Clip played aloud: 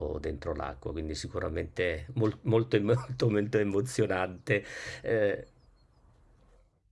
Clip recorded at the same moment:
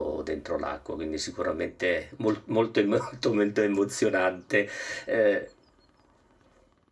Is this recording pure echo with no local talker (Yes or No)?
Yes